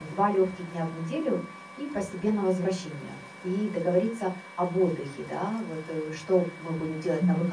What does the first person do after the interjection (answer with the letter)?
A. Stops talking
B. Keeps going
B